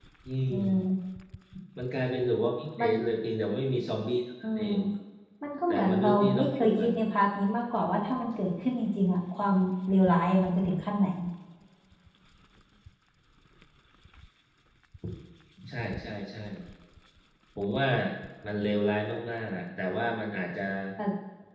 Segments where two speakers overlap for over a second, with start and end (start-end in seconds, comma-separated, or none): 5.7-6.9